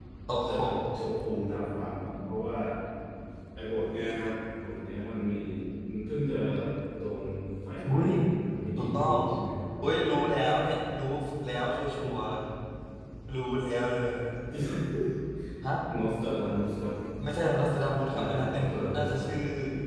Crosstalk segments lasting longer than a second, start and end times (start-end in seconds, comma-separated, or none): 18.1-19.3